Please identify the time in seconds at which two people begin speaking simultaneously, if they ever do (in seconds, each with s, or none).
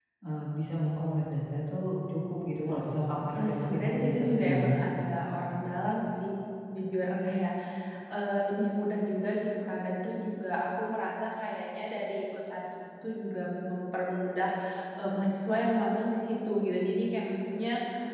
3.3 s